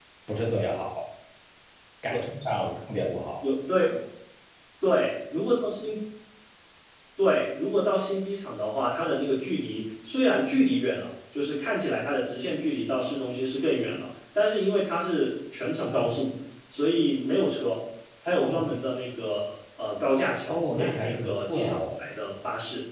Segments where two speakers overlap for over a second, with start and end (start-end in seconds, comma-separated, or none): 20.5-22.0